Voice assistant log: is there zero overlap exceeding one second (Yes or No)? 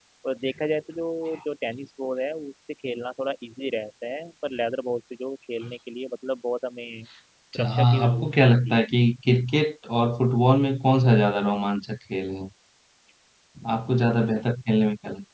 No